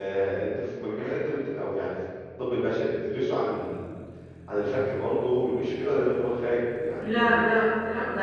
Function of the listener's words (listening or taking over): taking over